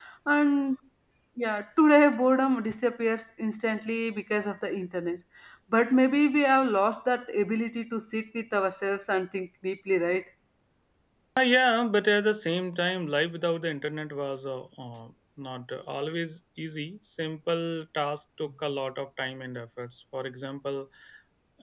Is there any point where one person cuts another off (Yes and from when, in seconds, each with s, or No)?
No